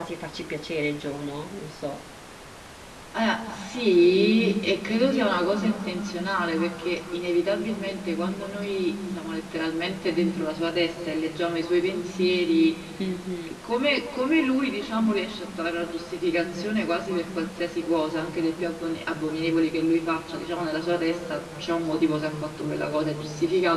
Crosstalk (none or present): none